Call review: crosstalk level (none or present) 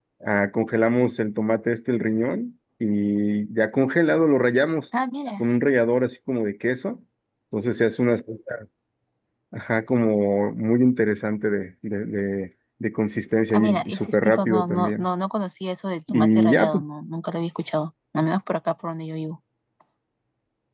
present